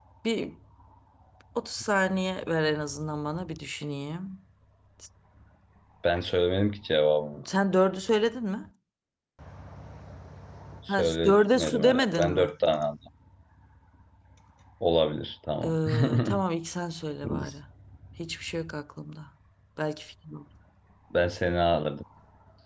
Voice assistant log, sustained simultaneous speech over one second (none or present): present